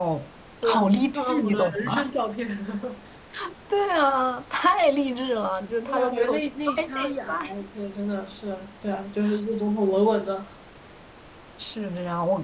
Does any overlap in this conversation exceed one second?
Yes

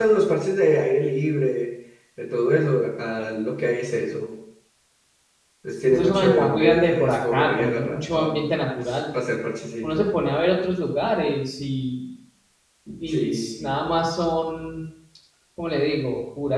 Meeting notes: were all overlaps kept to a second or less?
No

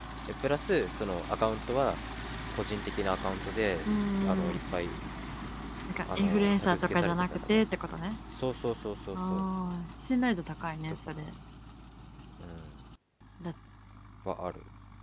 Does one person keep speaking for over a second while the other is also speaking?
Yes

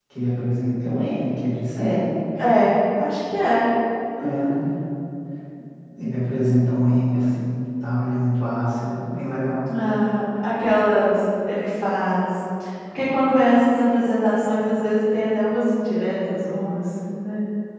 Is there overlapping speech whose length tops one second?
No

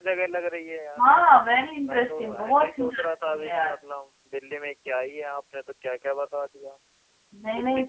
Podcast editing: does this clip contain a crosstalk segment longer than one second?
Yes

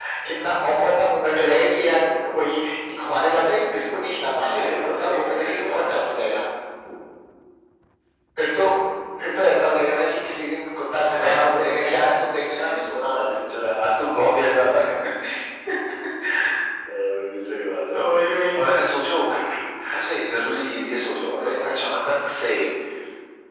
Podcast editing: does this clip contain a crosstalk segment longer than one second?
Yes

